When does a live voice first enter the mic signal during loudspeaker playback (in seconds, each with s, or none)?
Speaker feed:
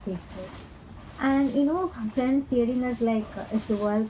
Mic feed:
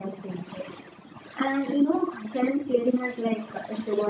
none